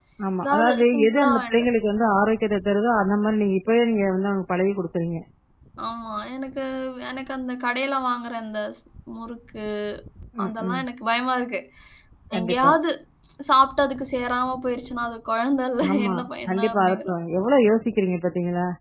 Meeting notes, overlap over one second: present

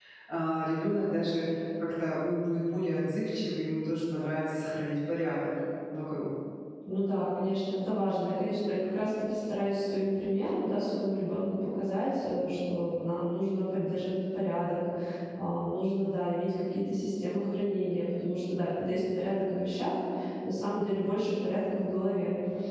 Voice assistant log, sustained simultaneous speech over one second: none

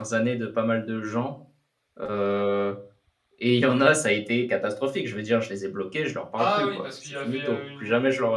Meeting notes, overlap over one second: present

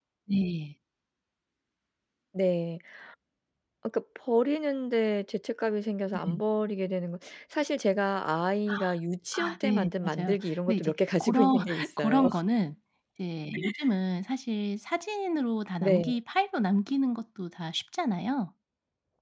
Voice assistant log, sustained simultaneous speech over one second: present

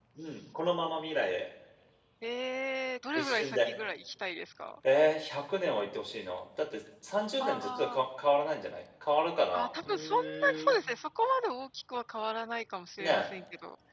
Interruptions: present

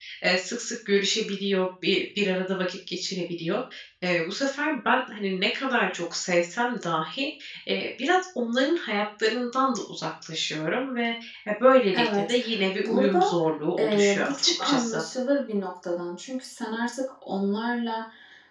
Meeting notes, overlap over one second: present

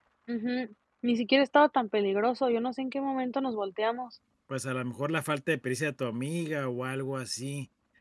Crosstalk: none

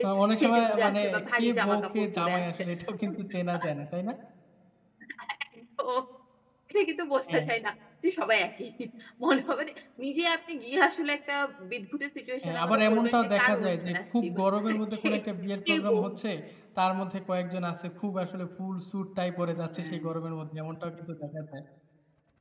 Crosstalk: present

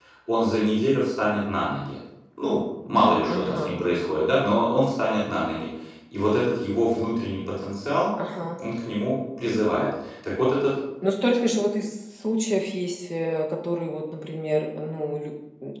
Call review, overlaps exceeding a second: none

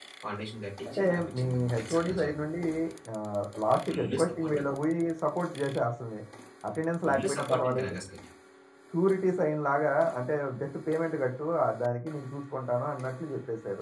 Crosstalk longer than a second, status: present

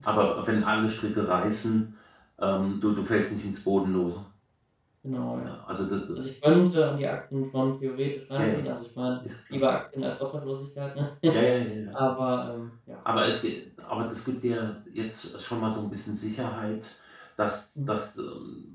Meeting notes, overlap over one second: none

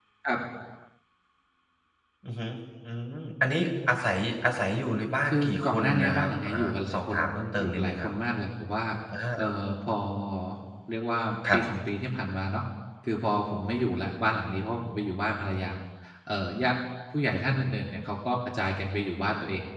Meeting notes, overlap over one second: present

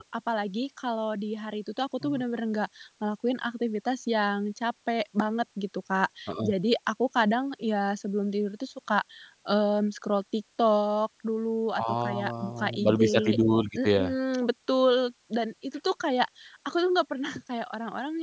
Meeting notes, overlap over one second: present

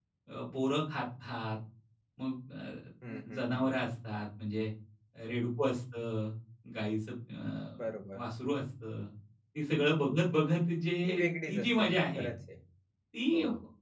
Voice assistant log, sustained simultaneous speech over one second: present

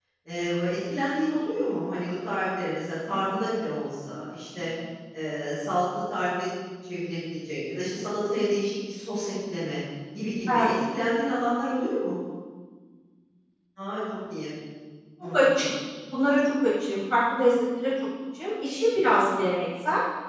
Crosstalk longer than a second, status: none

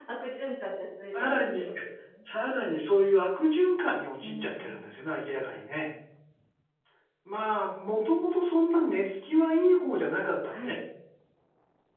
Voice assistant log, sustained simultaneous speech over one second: present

